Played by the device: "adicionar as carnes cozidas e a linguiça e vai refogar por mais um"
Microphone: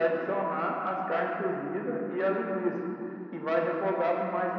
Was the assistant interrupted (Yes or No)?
No